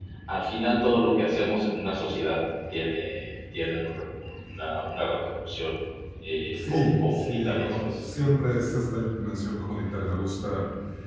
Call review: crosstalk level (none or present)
present